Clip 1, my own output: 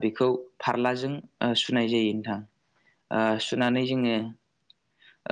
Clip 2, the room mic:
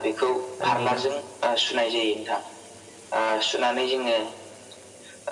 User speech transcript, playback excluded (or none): दा नोंथां